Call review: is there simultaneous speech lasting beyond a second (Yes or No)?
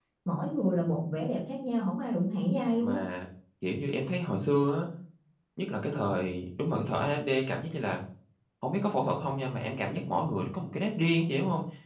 No